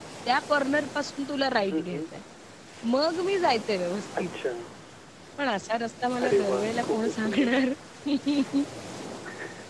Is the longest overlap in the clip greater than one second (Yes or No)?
Yes